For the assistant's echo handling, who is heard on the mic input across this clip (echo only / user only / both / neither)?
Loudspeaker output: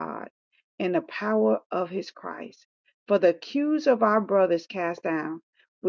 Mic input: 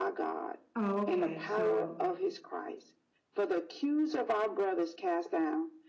both